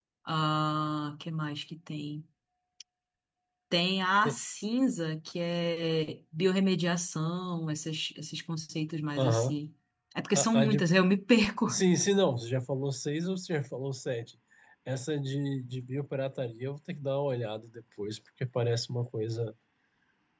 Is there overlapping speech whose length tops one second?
No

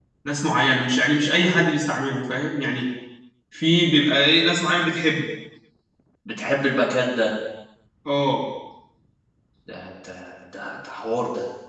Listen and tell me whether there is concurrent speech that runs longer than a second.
No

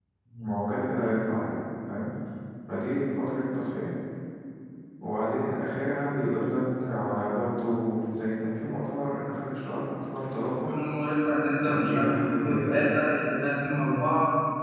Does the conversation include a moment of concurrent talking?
Yes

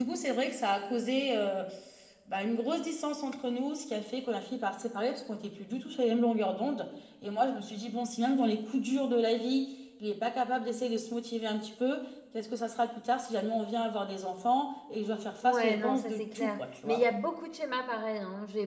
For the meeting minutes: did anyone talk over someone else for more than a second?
Yes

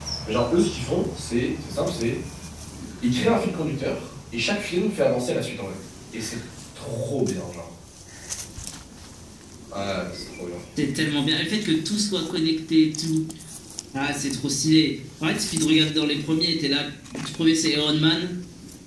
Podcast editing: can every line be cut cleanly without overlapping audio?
Yes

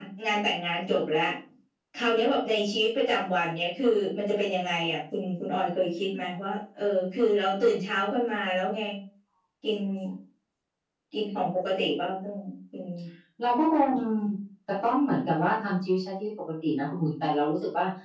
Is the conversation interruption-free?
Yes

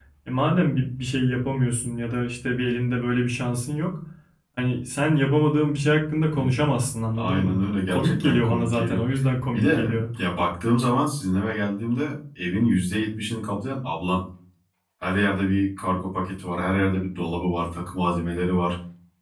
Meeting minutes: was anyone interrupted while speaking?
Yes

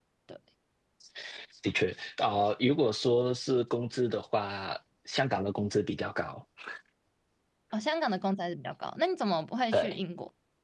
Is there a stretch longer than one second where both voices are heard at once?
No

